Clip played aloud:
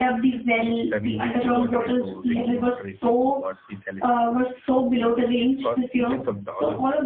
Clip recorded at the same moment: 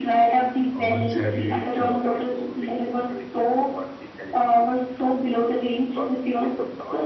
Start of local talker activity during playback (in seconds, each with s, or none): 0.8 s